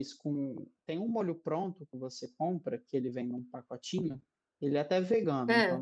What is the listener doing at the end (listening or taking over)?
listening